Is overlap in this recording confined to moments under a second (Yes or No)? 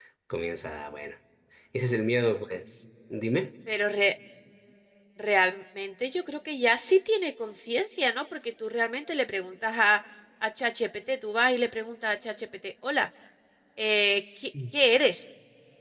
Yes